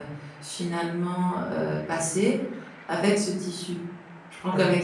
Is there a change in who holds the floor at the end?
No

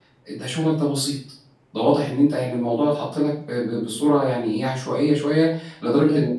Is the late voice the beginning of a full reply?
No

